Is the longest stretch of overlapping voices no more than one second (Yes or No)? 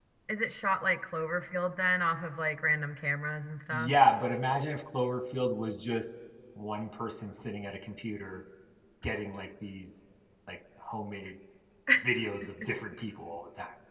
Yes